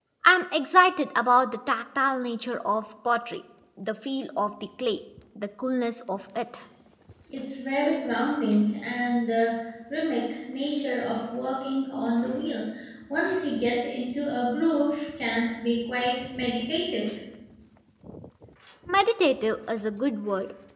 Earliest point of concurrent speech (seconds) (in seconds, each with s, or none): none